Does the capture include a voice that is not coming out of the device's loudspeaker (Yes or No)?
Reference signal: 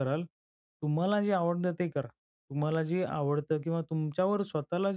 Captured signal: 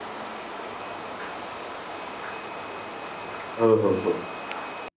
Yes